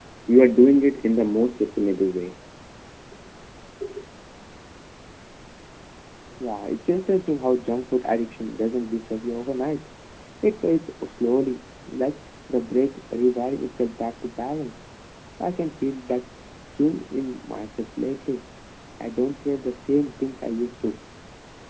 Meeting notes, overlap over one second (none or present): none